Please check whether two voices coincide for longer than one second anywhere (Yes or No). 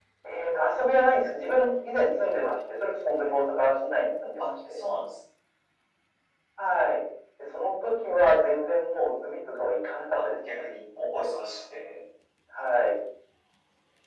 No